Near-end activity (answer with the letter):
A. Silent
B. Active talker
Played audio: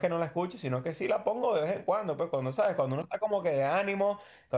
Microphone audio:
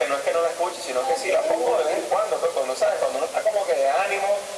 B